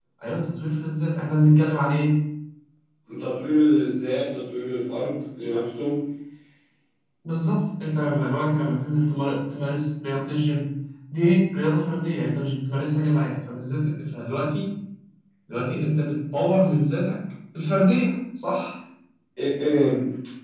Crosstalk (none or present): none